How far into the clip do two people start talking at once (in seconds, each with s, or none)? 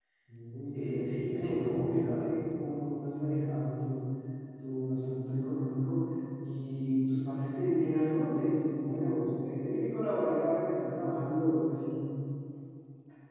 0.7 s